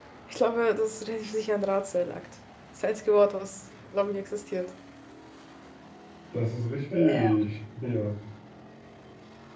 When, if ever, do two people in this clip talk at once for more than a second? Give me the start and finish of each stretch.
none

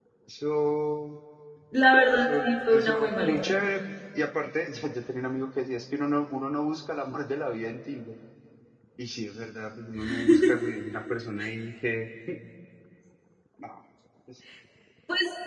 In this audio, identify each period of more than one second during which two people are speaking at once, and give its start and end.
2.1-3.5

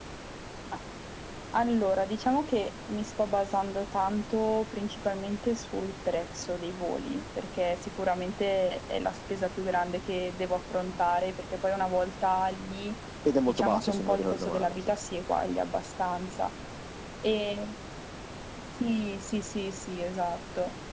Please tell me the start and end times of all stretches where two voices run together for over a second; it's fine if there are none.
13.5-15.0

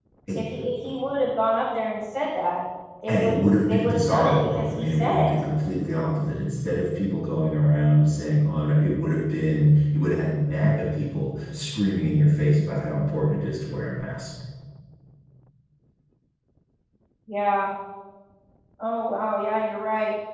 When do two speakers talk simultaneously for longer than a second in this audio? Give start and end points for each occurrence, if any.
3.1-5.3

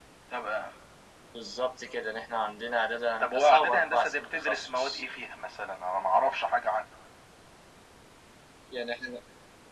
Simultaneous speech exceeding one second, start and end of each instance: 3.2-5.0

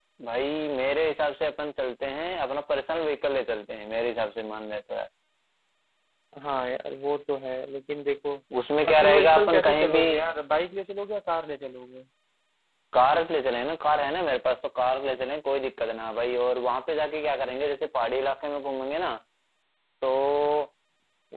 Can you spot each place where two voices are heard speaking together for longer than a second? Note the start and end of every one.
8.8-10.0

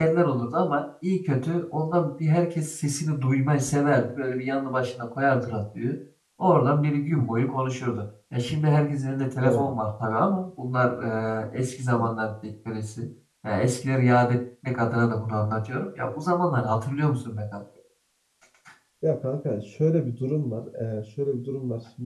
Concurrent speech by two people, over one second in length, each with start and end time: none

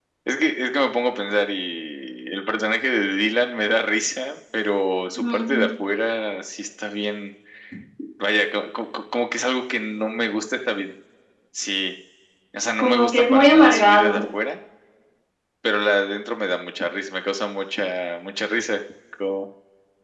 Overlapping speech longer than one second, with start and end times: 12.8-14.2

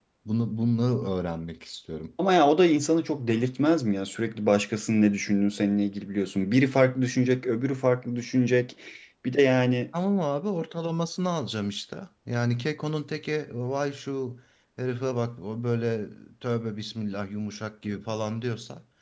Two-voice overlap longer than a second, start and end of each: none

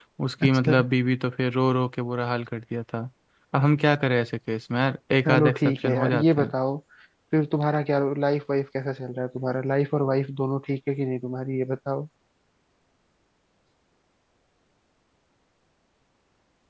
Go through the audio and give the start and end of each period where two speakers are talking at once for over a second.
5.2-6.5

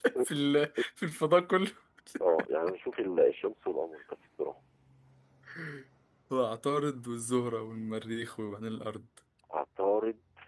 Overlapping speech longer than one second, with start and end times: none

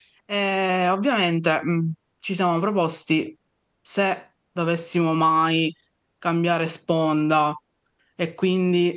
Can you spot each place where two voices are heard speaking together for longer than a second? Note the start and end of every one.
none

